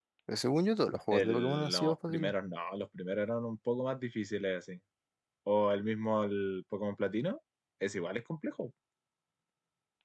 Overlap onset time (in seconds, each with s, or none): 1.1 s